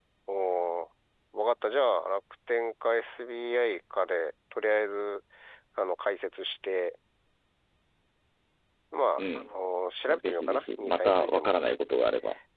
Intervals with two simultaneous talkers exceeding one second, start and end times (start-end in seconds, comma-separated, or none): 10.1-11.6